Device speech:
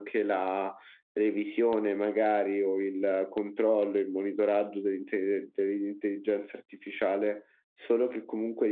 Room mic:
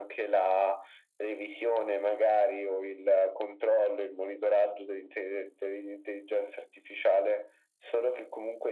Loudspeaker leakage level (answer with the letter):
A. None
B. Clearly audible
B